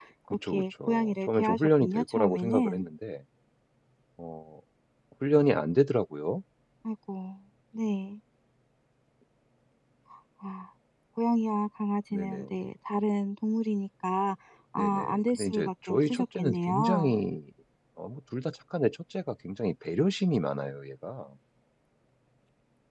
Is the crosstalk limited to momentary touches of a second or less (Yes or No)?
No